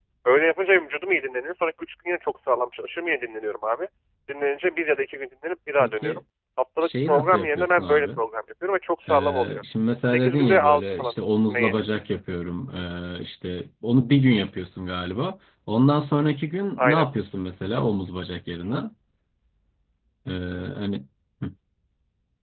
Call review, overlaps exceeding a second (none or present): present